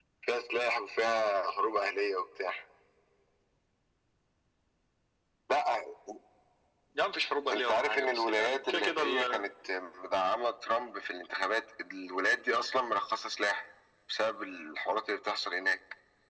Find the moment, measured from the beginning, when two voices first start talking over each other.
7.5 s

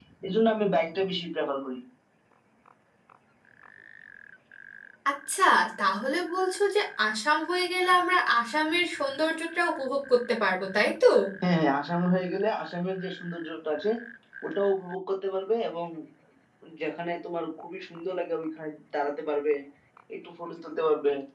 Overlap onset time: none

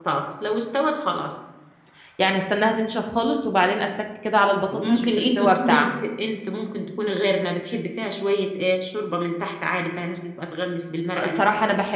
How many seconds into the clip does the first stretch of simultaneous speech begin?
4.7 s

